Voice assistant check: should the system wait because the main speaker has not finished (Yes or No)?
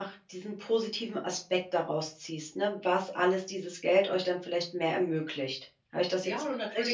No